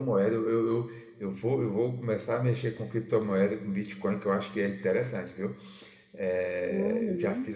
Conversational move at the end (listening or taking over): taking over